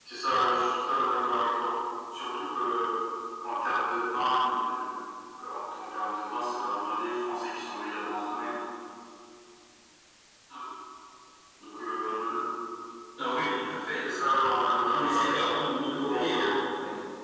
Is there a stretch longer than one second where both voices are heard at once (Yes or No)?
Yes